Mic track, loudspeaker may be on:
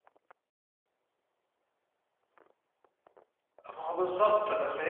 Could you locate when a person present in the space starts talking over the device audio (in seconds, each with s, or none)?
3.7 s